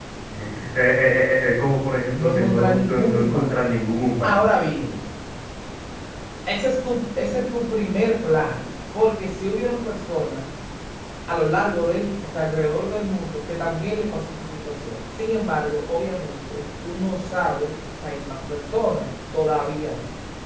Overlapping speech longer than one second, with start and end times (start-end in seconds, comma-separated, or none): 2.1-3.7